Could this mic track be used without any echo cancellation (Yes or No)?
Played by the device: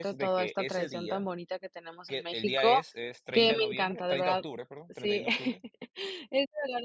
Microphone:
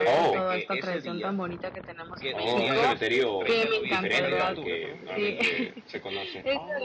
No